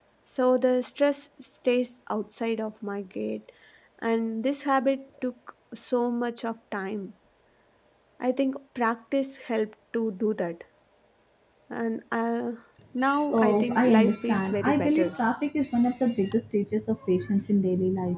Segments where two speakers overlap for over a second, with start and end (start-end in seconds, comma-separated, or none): 13.3-15.1